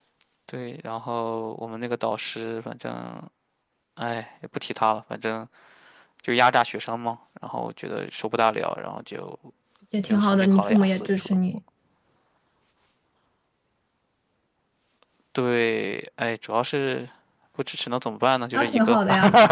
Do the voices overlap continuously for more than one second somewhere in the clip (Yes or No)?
Yes